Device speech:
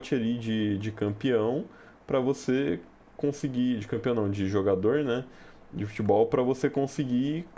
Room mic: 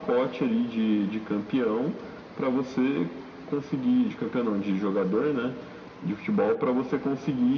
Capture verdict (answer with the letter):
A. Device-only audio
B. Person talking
A